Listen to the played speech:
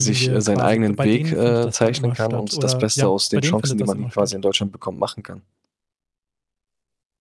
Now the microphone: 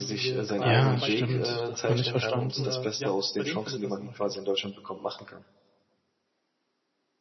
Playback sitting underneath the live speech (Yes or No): Yes